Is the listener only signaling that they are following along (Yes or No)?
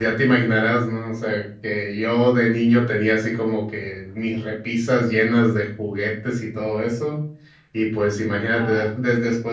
Yes